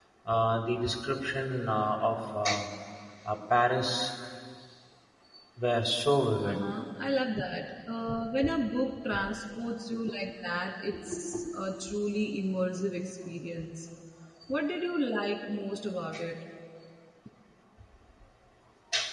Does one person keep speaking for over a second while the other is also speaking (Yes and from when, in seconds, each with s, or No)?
No